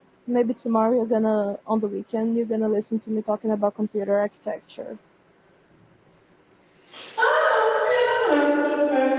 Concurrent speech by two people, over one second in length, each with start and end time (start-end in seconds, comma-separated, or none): none